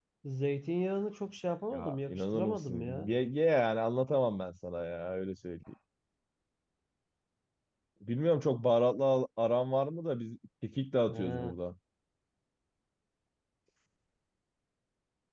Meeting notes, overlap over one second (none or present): present